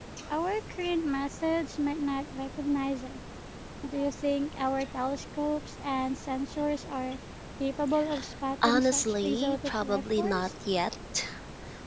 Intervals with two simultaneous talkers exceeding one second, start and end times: 8.6-10.5

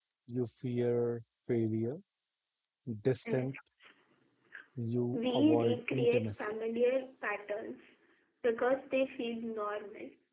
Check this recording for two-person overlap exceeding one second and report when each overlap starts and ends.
5.1-6.5

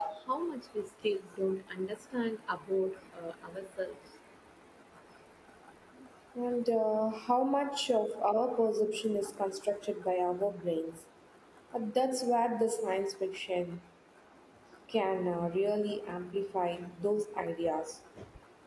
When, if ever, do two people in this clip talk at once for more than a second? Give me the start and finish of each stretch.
none

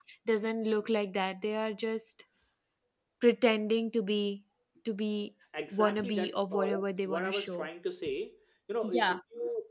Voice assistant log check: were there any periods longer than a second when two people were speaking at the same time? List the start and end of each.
5.7-7.7

